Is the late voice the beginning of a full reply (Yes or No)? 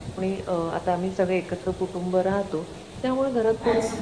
No